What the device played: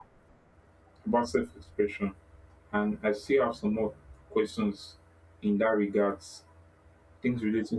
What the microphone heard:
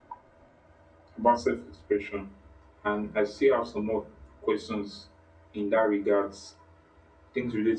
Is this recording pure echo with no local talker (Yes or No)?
Yes